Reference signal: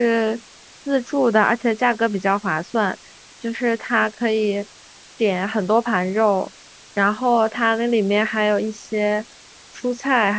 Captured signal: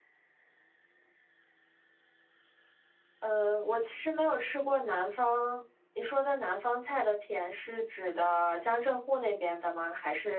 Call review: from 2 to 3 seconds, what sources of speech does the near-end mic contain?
neither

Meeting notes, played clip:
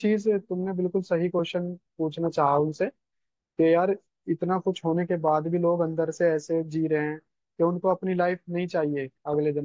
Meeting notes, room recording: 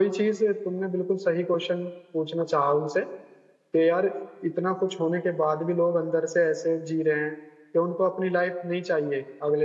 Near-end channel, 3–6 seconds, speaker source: echo only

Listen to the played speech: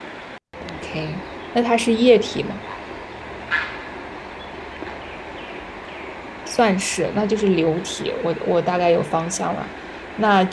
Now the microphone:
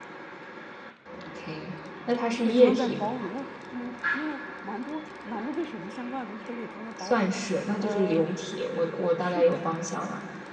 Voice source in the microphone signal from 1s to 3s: both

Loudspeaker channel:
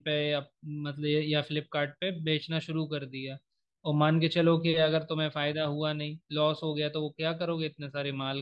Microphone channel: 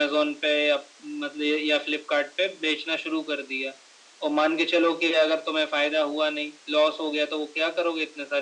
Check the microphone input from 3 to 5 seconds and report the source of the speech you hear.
echo only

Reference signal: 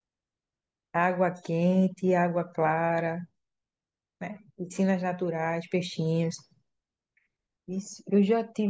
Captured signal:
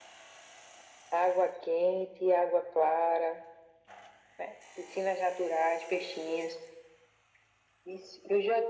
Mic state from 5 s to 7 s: echo only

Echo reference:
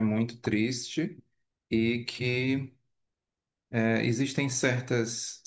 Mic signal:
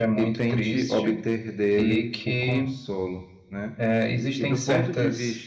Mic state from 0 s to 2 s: both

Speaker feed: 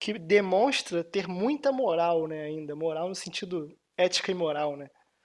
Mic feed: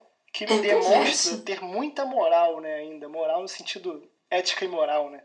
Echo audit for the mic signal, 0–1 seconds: both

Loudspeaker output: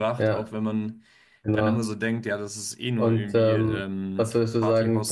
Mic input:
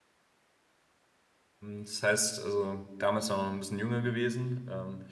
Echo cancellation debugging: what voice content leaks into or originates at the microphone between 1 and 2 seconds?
user only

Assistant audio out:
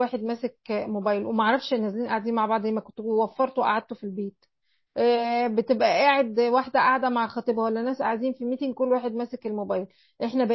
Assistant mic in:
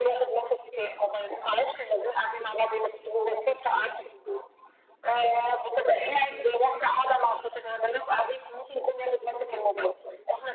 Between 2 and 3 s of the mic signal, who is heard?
echo only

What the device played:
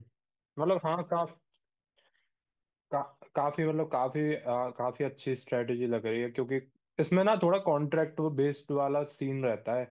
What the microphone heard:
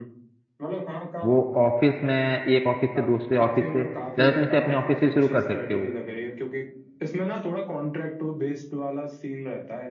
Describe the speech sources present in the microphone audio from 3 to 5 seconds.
both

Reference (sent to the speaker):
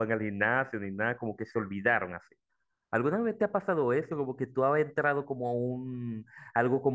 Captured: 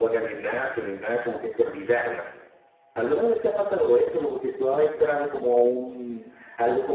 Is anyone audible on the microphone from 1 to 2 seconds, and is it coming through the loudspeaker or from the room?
echo only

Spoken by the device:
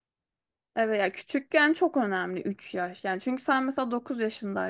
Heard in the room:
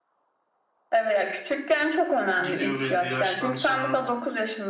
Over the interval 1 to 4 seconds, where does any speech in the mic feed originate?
both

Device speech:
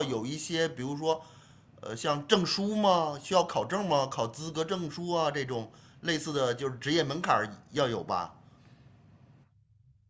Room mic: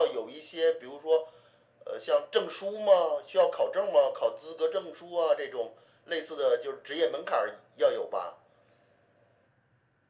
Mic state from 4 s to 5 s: echo only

